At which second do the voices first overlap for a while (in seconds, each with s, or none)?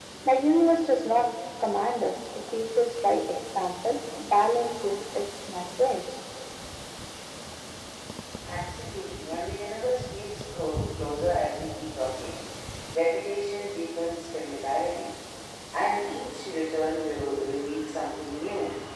none